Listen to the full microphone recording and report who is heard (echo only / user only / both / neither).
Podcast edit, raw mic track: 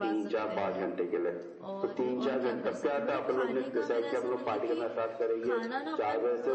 both